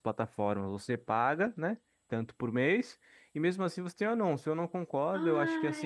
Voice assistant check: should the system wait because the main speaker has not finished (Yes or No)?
No